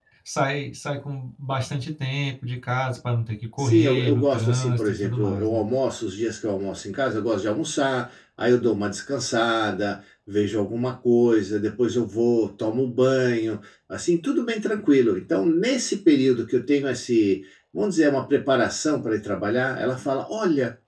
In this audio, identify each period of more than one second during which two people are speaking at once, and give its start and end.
3.6-5.6

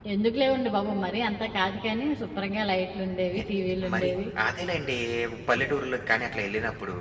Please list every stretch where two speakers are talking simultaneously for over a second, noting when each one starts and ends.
none

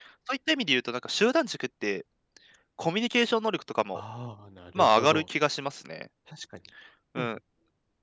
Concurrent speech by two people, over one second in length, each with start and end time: none

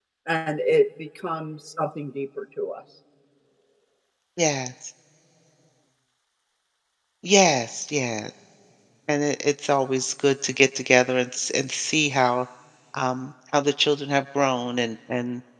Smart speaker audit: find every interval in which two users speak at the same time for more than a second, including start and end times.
none

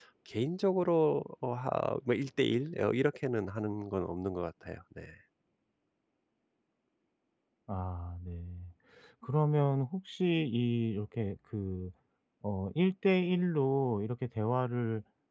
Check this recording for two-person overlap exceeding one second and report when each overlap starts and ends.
none

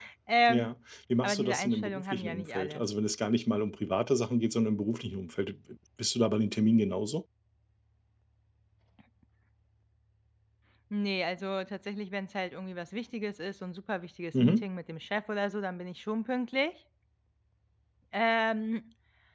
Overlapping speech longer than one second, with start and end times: 1.2-2.8

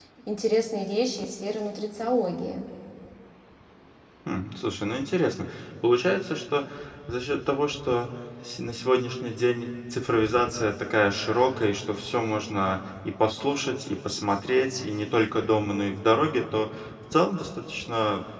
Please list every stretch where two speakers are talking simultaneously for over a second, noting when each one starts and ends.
none

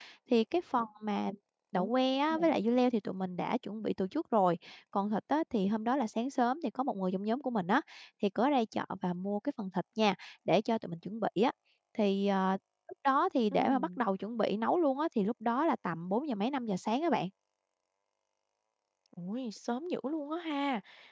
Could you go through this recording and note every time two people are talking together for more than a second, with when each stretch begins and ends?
none

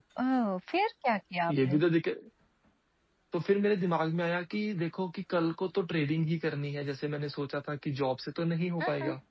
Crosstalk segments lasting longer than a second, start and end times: none

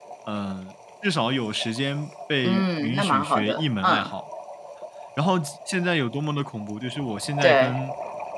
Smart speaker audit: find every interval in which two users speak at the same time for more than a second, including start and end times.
2.4-4.1

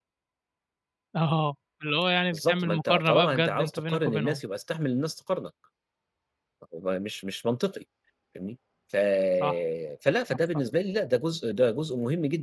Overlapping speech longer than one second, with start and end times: 2.3-4.4

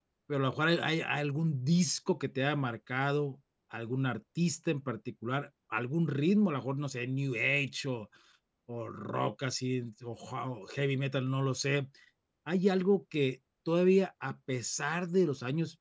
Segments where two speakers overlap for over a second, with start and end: none

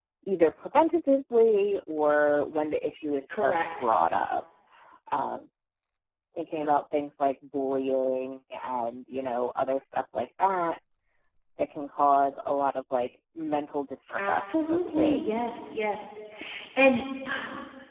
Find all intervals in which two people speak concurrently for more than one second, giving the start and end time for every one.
14.2-15.4

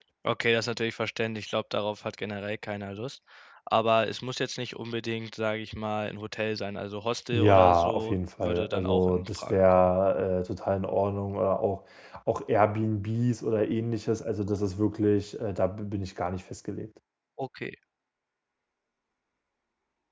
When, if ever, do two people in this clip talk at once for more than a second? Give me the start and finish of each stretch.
7.3-9.9

